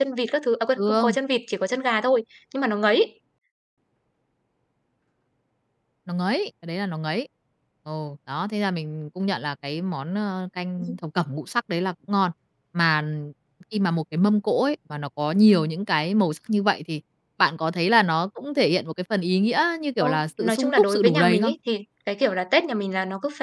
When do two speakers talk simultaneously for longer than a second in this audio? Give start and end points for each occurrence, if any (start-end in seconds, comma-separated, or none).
20.0-21.5